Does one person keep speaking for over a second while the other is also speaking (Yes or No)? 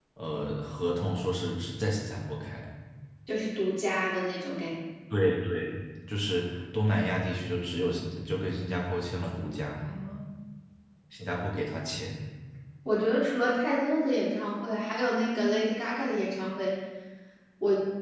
No